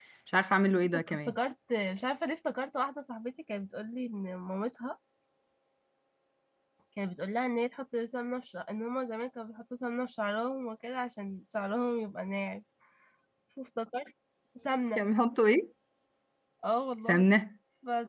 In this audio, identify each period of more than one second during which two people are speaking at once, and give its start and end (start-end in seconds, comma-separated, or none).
none